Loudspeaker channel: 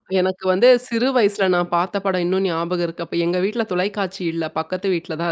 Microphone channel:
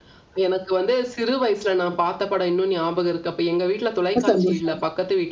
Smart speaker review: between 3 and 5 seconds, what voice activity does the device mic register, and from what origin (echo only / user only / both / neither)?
both